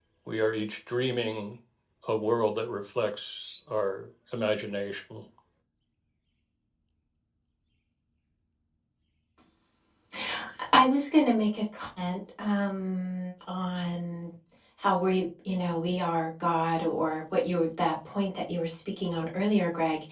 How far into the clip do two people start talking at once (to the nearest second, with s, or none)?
none